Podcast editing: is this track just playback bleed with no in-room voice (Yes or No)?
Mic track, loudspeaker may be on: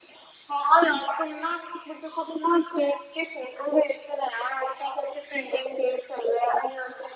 Yes